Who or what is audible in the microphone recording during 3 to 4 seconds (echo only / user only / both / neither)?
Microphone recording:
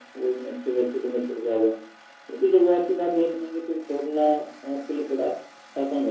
echo only